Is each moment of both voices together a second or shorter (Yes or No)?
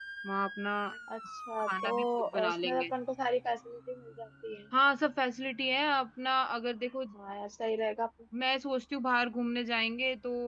No